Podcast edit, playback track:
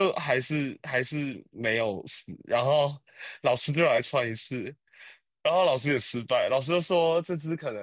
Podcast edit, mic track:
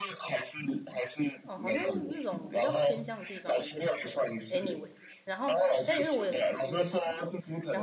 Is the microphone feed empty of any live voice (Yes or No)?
No